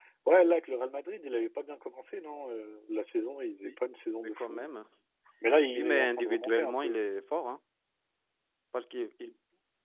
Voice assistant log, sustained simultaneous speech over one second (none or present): present